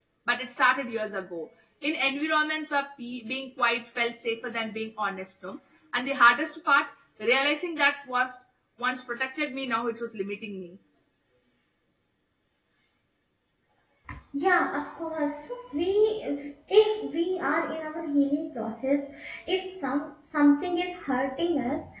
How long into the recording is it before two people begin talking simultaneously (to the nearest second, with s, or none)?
none